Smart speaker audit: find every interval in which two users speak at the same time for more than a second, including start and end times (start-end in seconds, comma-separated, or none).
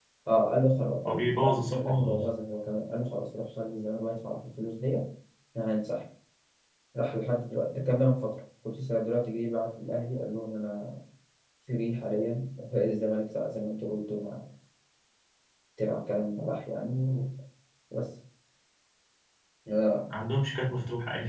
1.0-2.3